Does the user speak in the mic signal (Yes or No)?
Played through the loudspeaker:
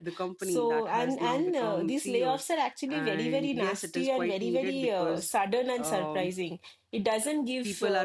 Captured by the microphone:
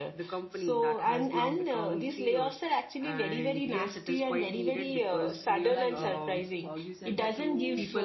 Yes